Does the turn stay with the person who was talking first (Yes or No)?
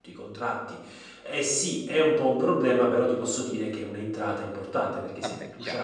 Yes